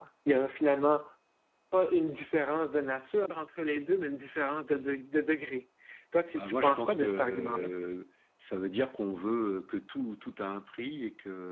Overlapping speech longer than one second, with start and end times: 6.3-7.7

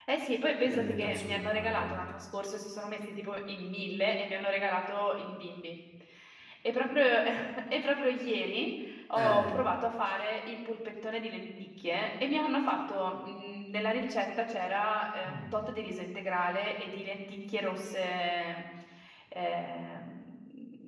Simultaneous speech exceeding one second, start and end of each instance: 0.7-2.1

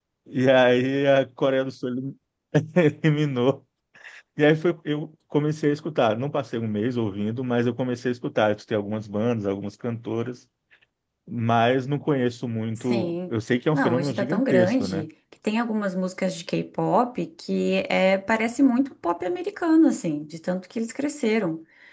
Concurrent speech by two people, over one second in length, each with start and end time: 13.7-15.1

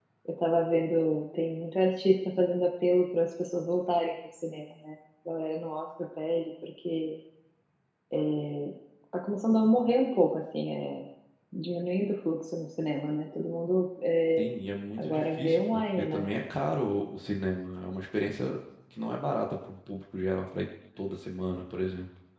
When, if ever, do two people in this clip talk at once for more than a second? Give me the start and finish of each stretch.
15.0-16.3

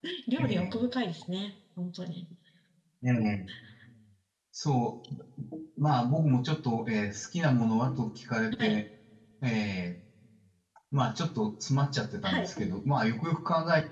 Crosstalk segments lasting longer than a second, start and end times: none

